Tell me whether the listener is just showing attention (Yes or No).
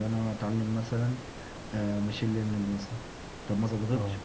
Yes